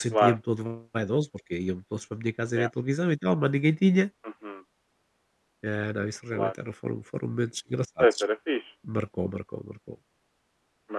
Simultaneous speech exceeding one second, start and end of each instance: none

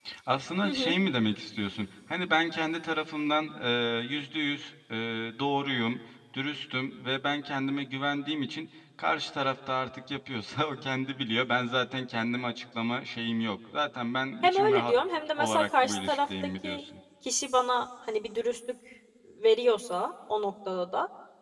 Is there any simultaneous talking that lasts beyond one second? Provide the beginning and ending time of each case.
15.4-16.8

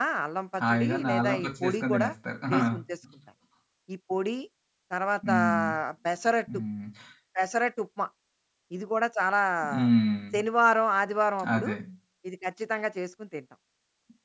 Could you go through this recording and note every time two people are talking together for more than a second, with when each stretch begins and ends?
0.7-2.1

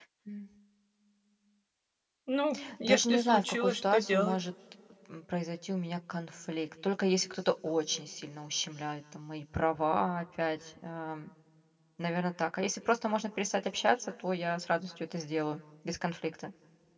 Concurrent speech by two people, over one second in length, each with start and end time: 2.8-4.4

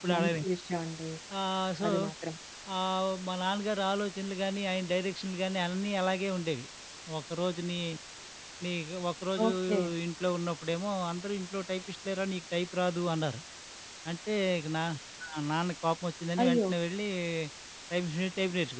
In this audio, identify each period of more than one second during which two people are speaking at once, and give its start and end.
none

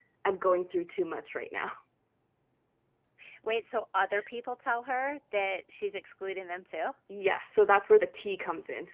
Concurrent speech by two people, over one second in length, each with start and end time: none

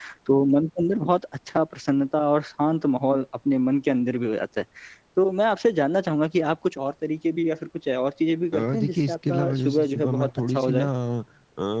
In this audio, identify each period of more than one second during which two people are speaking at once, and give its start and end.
8.5-10.9

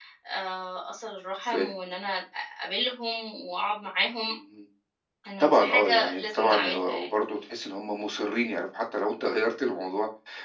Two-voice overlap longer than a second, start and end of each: 5.4-7.1

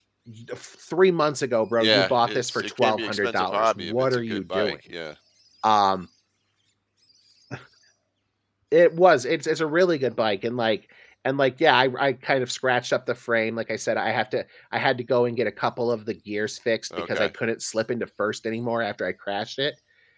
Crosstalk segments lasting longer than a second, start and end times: 1.8-4.8

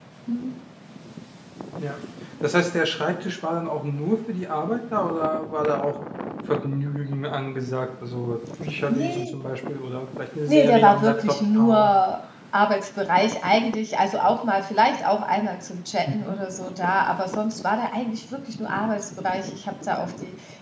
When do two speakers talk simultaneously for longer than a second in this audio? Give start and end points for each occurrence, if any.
10.5-11.9

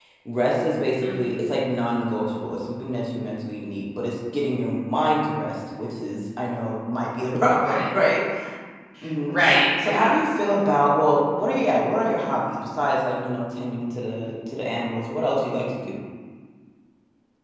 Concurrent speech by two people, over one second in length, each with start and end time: none

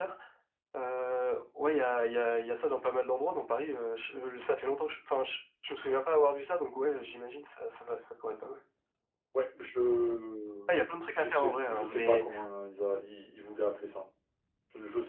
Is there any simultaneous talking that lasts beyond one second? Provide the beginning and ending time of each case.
10.7-12.2

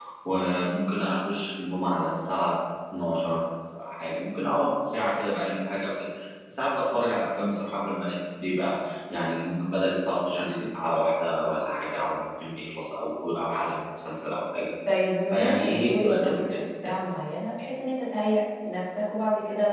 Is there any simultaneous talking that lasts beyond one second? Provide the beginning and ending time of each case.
15.3-16.9

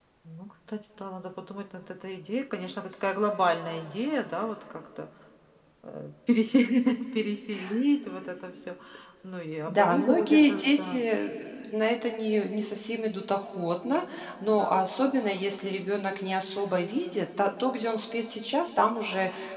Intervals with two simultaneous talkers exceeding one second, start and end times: 9.7-11.0

